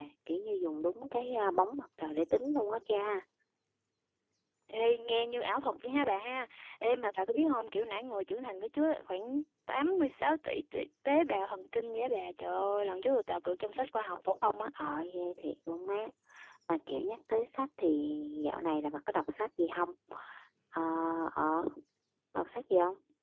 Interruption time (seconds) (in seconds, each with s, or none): none